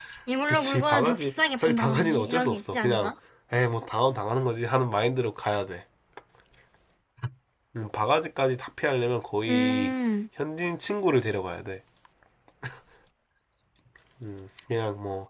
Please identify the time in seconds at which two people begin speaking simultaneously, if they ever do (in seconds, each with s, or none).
0.5 s